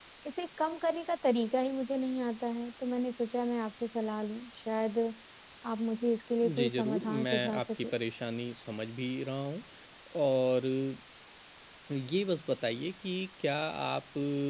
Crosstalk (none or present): present